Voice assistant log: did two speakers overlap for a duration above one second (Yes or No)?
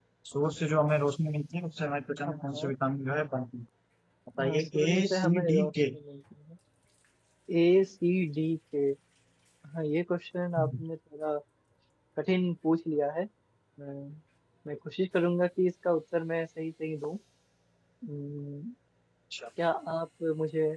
Yes